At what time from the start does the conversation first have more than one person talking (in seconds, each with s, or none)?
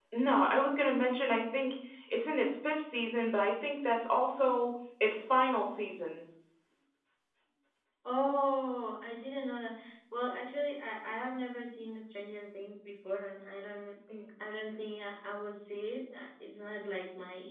none